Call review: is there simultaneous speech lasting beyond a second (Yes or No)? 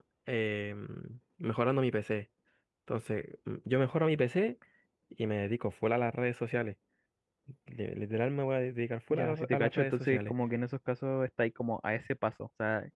Yes